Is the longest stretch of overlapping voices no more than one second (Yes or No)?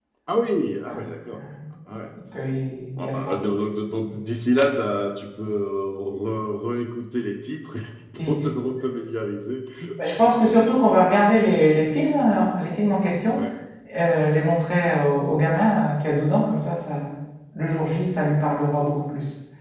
Yes